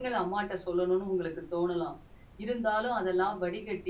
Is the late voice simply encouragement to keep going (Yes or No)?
Yes